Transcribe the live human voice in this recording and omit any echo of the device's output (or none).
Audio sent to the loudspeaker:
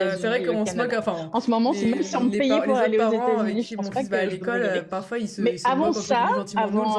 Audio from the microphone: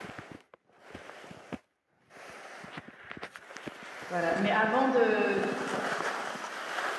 Voilà. Mais avant de,